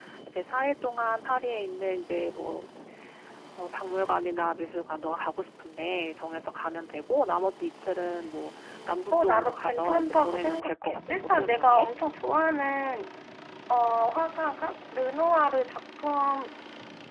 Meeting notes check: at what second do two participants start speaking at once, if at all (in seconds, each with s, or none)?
9.1 s